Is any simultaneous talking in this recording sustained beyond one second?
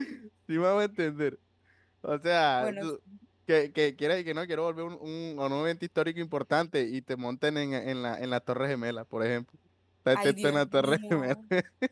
Yes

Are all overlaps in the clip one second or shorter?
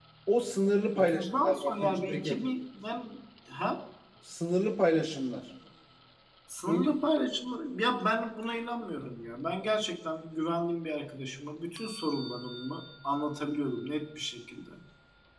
No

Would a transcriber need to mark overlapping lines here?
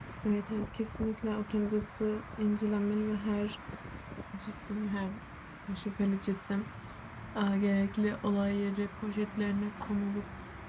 No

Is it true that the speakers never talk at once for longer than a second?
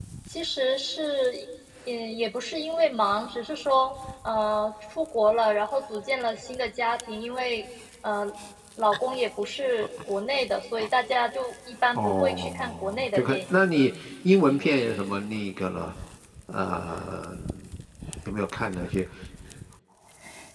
No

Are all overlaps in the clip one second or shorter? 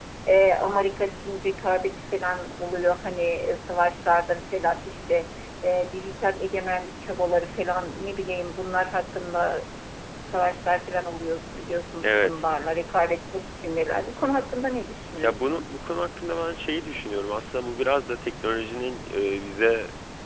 Yes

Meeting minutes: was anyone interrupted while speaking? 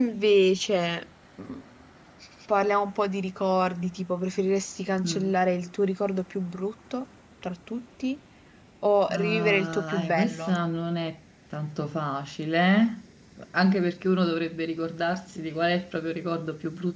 Yes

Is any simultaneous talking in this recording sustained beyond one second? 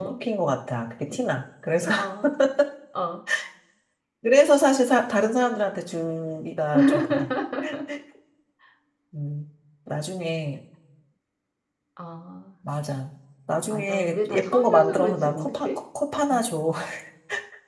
Yes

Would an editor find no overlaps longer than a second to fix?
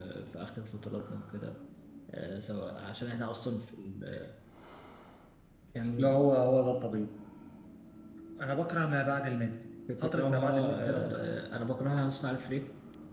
No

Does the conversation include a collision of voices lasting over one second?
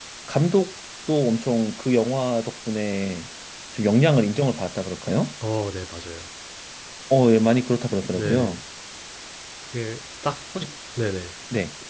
No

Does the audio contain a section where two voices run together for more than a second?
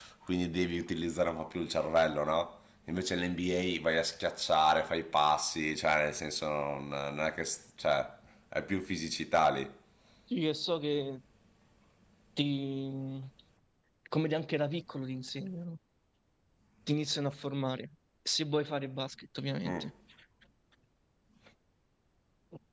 No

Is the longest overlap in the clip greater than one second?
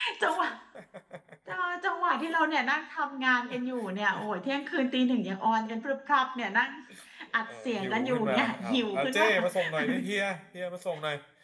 Yes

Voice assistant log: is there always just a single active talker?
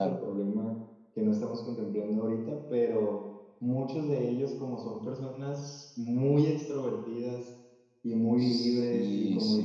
No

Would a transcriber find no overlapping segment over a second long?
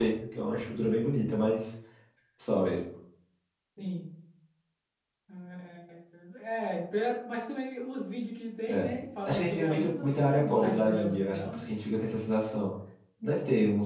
No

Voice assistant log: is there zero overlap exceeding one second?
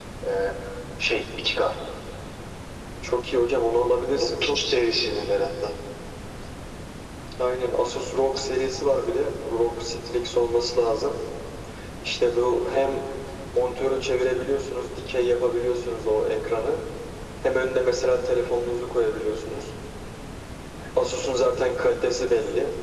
Yes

